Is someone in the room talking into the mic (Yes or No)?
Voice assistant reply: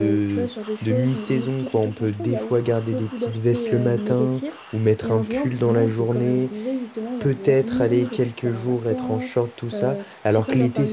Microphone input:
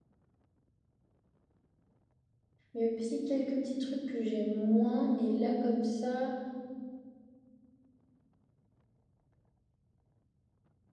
Yes